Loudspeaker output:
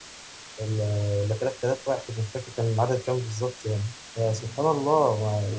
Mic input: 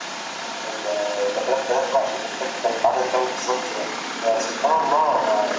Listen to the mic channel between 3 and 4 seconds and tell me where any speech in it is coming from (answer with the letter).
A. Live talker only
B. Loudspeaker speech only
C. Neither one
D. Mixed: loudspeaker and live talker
B